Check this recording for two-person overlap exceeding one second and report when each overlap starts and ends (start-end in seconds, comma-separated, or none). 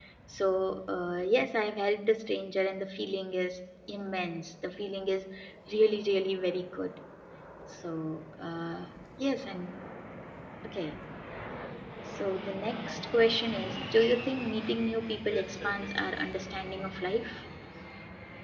15.3-17.2